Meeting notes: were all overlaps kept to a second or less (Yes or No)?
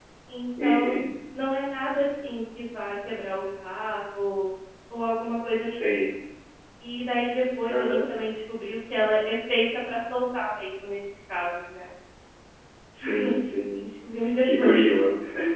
Yes